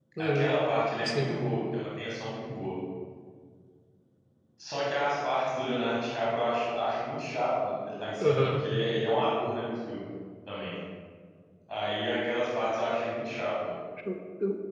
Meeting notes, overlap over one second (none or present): none